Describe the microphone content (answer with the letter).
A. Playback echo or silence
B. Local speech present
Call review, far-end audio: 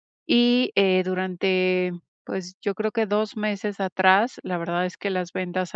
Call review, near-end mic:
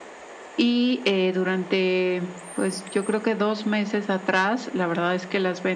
A